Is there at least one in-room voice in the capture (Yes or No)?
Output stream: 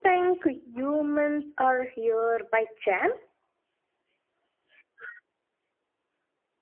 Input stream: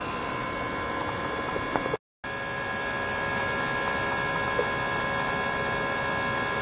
No